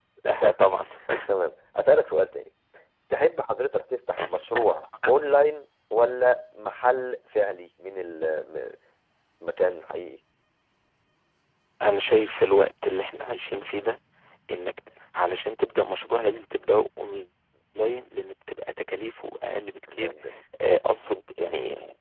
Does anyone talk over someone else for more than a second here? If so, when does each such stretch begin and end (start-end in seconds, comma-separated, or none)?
none